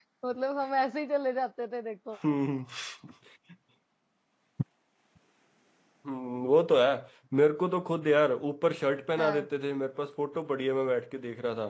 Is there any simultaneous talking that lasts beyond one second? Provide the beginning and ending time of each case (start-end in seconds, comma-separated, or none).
none